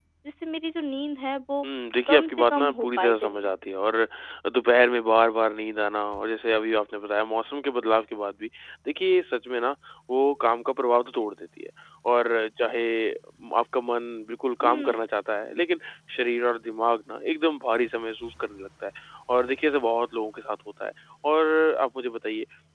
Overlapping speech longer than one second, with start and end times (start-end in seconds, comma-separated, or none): 2.1-3.5